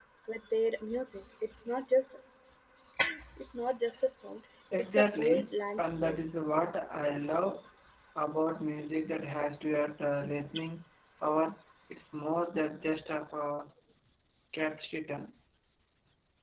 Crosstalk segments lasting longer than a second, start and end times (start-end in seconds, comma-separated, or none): 5.0-6.2